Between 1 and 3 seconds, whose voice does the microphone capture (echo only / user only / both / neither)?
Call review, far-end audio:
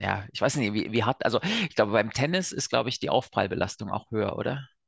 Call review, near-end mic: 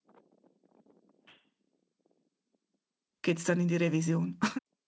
neither